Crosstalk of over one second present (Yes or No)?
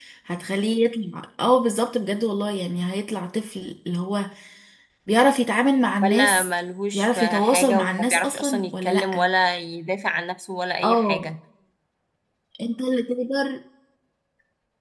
Yes